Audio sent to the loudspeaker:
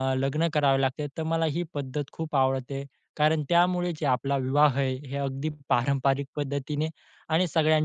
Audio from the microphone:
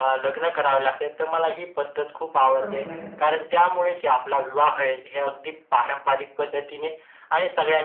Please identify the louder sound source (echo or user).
echo